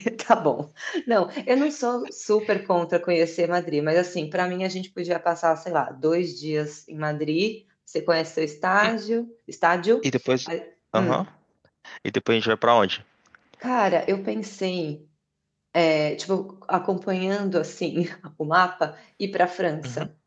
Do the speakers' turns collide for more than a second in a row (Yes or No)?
No